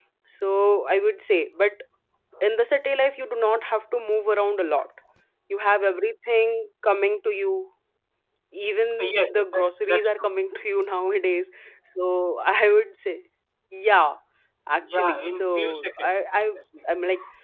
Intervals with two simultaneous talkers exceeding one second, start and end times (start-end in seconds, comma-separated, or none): 9.0-10.3, 14.8-16.1